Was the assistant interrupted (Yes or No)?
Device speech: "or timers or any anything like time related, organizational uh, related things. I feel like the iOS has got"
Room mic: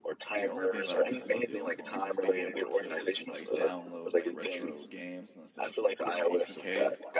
Yes